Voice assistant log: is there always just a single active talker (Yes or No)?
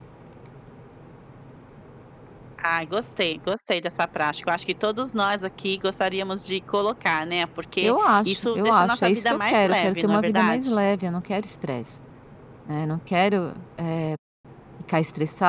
No